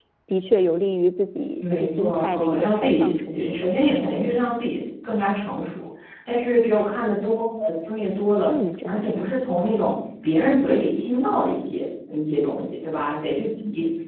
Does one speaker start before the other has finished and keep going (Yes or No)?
Yes